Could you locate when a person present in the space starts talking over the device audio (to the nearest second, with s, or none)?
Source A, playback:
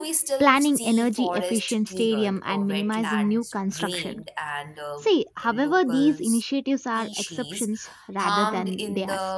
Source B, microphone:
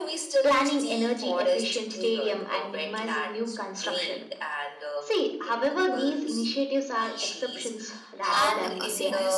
8 s